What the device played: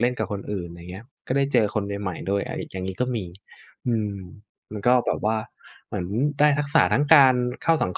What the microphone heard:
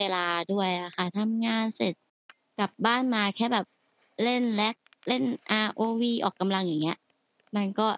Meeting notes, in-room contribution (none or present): present